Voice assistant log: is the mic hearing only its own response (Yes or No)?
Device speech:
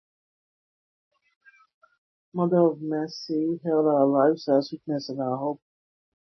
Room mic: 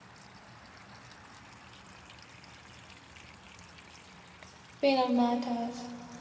No